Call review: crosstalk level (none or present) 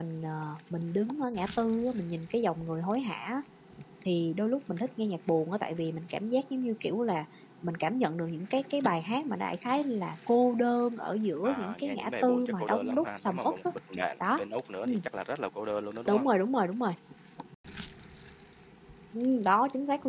present